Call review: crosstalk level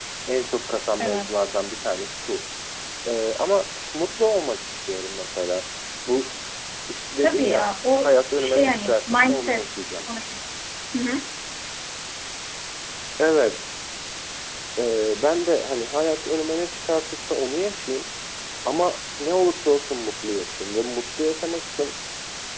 present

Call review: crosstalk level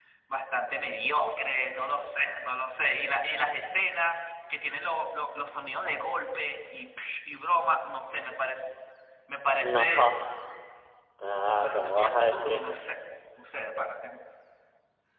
present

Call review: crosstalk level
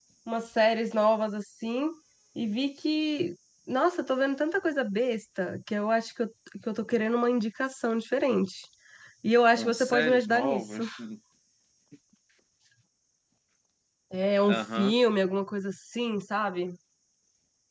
present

